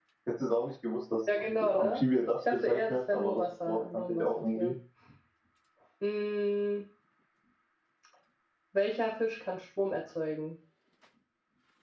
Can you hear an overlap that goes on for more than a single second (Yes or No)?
Yes